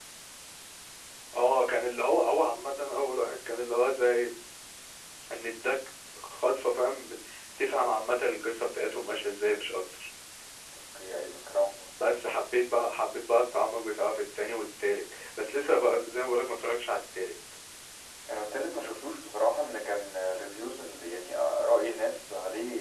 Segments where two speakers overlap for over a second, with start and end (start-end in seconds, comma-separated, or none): none